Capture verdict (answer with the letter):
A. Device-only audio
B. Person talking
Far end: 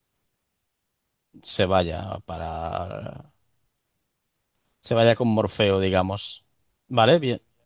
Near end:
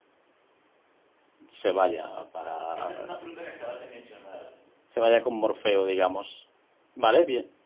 B